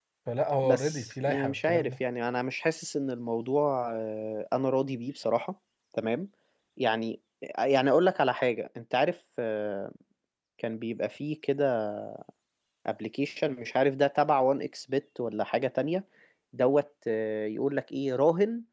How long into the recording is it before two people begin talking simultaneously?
0.6 s

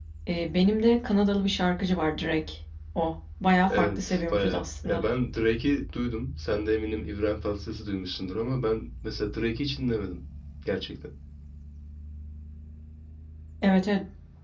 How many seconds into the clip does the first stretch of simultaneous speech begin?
3.7 s

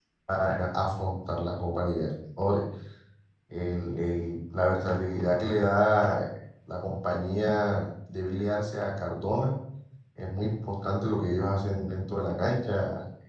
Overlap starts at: none

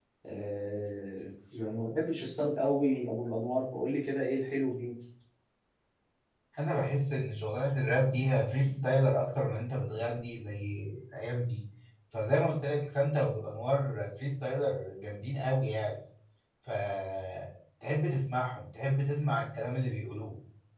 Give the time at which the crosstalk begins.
none

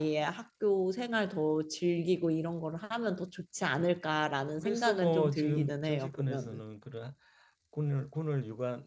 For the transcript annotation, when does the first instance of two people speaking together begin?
4.6 s

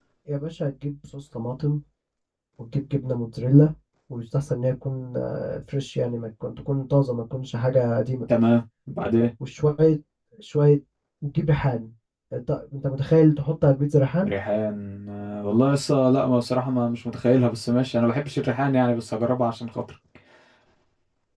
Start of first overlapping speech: none

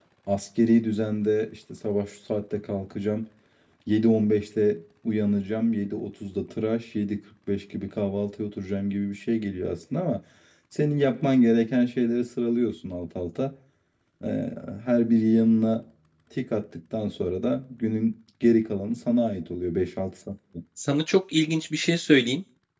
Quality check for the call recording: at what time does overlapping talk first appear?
none

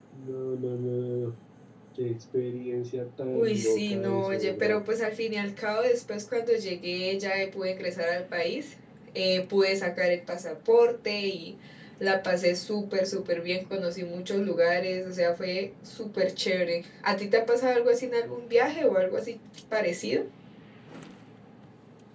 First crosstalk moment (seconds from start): 3.3 s

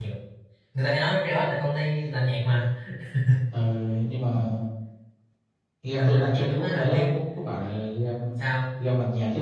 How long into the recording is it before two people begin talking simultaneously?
6.0 s

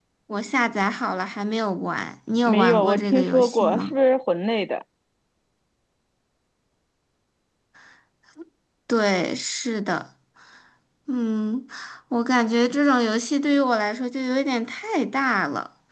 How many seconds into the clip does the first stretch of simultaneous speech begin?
2.4 s

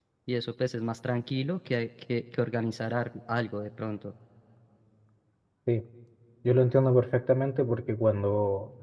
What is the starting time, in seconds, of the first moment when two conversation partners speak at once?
none

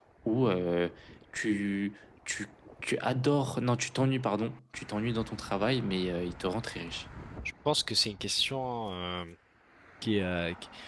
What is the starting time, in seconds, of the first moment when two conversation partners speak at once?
none

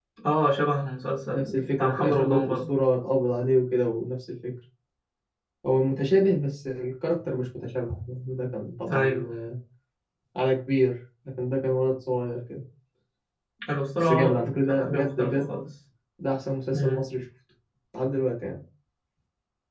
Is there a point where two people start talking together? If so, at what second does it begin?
1.3 s

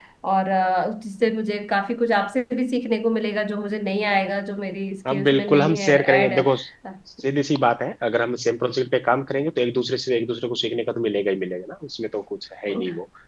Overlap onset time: 5.0 s

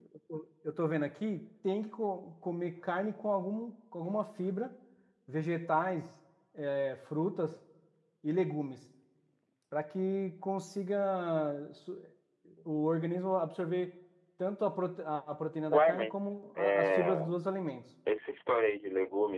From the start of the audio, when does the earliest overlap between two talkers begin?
15.7 s

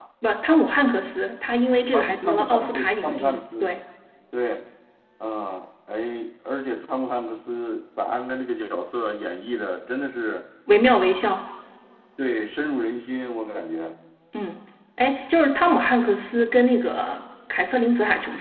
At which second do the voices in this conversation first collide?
1.9 s

